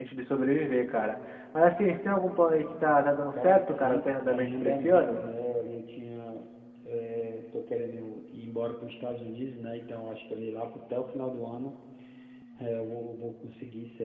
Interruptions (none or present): present